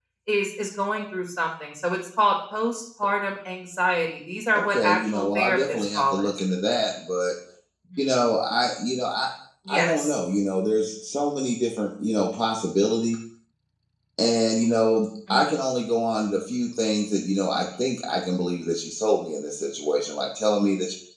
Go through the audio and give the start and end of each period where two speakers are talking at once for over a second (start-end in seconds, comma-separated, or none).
4.5-6.3